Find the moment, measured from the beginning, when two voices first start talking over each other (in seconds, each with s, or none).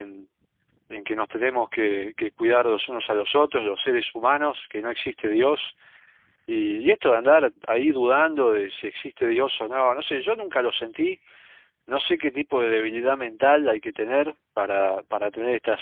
none